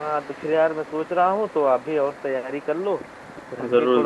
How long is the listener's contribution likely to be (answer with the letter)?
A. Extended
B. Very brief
B